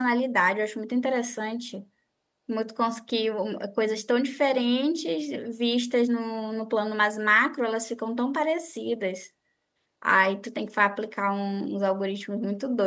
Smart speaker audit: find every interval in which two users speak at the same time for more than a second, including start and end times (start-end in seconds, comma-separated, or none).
none